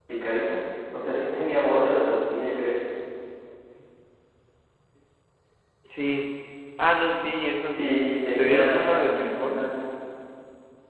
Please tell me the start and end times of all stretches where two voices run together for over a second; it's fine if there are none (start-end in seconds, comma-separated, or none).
8.4-9.7